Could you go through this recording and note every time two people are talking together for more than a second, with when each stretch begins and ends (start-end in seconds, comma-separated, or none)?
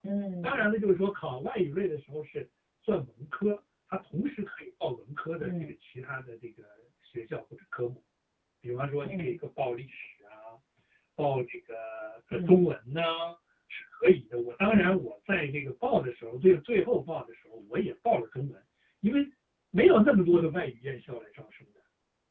none